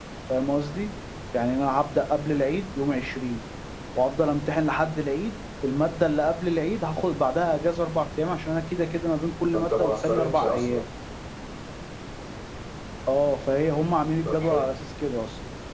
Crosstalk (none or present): present